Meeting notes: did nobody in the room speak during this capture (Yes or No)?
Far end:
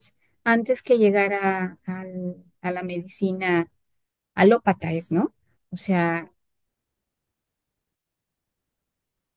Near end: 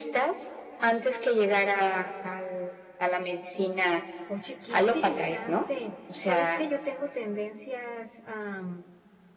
No